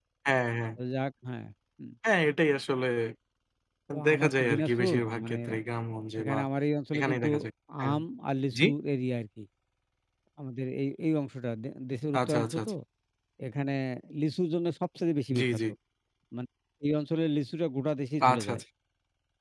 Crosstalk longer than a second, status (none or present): present